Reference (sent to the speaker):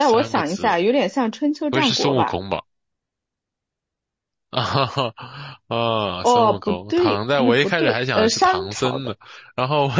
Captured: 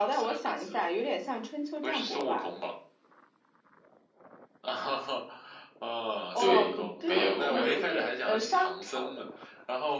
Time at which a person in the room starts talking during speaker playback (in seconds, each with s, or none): 6.4 s